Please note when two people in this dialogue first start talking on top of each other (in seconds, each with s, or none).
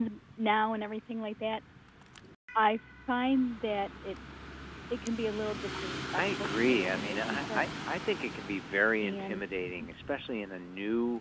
6.2 s